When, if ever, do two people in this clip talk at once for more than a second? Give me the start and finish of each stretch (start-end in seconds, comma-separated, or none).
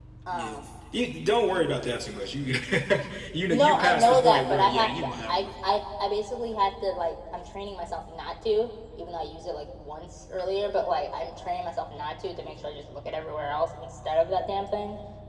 3.5-5.5